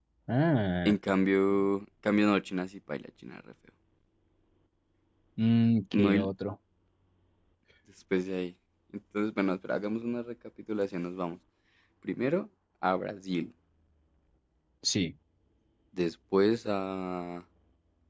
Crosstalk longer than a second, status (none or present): none